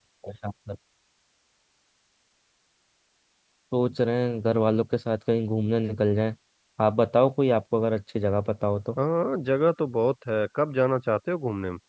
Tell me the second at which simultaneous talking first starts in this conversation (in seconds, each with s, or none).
none